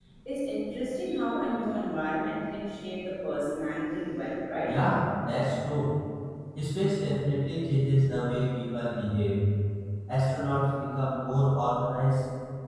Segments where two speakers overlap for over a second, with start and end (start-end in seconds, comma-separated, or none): none